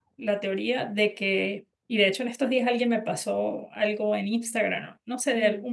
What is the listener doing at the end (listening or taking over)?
listening